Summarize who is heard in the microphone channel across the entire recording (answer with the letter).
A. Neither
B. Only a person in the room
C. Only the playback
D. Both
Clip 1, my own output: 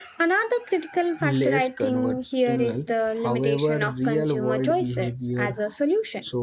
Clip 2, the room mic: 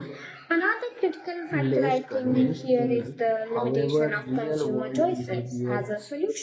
D